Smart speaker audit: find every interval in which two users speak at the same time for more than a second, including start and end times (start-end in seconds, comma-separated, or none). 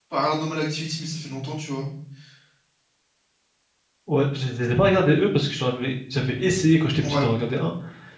none